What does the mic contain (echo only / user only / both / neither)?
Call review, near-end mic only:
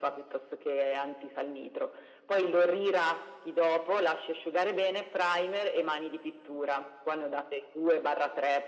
echo only